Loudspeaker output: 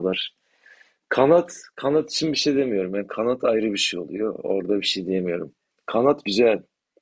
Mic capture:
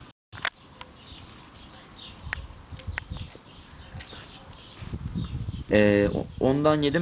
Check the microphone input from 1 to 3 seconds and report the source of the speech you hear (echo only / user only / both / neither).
neither